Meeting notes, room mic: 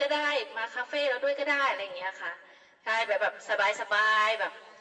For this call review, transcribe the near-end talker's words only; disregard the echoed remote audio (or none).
none